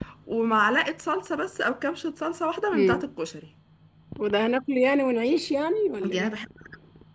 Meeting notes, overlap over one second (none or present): none